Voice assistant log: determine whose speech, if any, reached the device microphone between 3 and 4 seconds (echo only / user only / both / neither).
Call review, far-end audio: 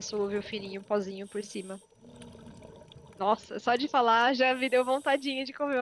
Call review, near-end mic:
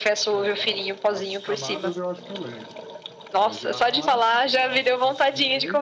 both